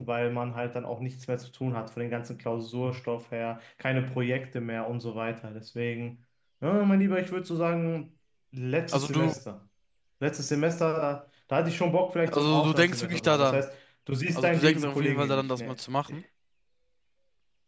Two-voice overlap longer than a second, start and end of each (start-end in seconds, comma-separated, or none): 12.3-13.6, 14.3-15.8